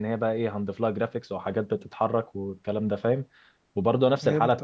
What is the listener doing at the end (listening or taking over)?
listening